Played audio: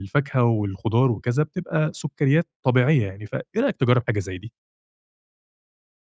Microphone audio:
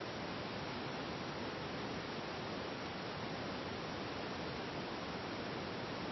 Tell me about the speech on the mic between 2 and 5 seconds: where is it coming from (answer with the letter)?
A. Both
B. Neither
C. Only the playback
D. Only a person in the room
B